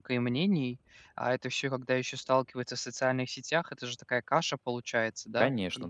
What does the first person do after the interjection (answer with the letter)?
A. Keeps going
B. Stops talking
B